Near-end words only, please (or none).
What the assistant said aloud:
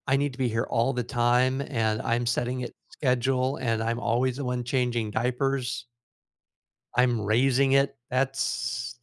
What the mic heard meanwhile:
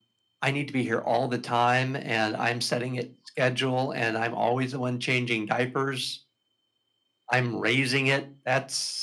none